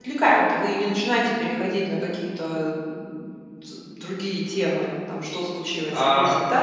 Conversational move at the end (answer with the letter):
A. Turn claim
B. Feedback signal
A